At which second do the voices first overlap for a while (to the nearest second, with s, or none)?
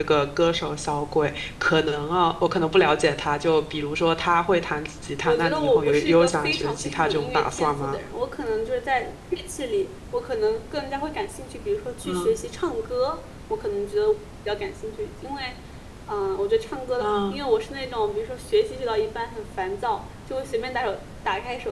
5 s